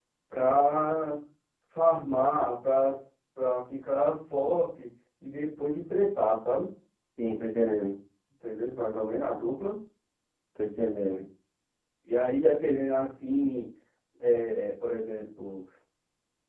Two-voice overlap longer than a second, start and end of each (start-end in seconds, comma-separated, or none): none